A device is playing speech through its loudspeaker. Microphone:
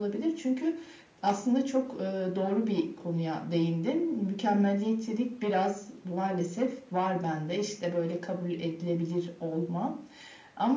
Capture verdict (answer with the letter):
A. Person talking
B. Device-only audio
B